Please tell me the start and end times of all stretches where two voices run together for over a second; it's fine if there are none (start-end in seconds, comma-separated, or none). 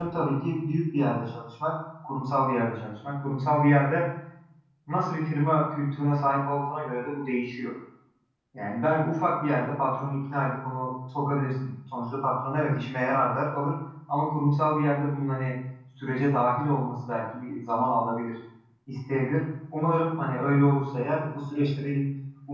none